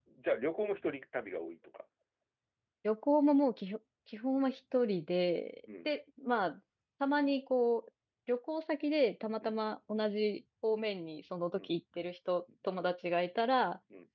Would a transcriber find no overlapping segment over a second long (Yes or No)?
Yes